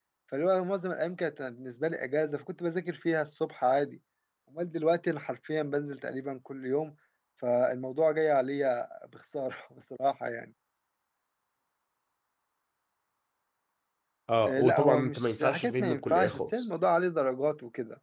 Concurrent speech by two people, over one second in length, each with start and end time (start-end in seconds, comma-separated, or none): 14.5-16.7